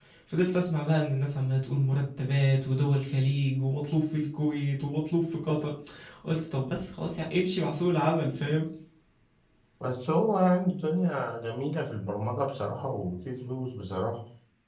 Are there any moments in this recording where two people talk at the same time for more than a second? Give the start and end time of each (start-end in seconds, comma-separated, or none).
none